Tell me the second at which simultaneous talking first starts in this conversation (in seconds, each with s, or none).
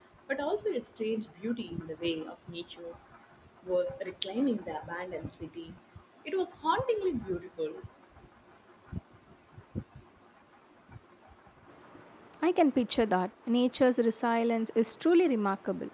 none